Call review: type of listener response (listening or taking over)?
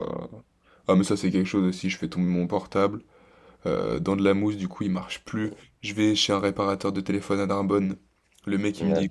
listening